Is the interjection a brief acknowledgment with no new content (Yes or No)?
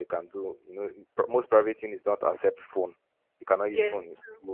Yes